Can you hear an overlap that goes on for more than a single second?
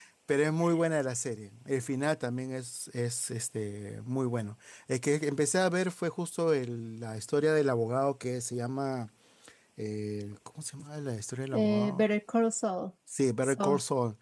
No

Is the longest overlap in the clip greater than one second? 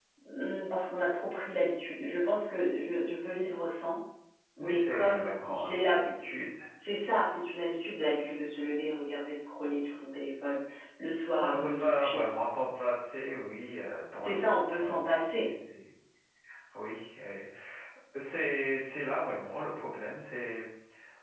Yes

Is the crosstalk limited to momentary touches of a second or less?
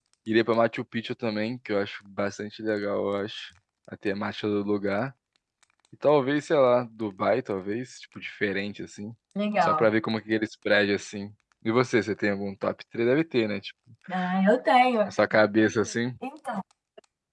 Yes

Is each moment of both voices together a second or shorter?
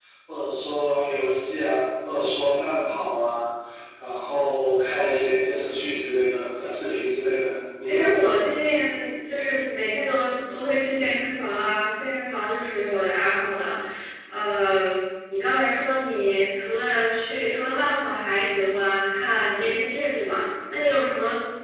Yes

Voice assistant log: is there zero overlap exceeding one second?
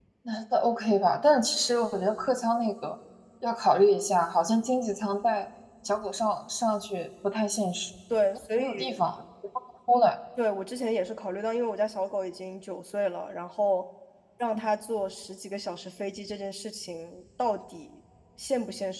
Yes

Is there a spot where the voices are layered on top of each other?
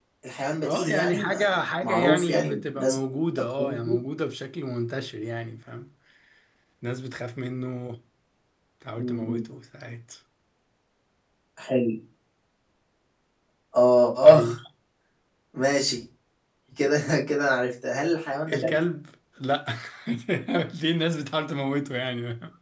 Yes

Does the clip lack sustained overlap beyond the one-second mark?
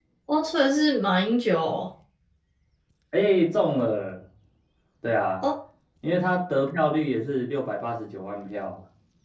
Yes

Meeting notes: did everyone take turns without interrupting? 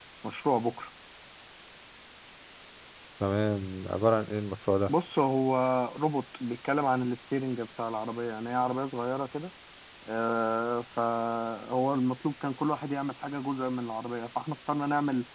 Yes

